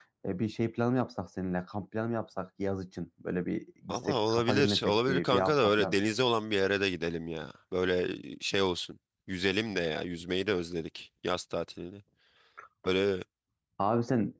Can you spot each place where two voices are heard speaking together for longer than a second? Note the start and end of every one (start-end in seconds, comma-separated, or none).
3.9-6.0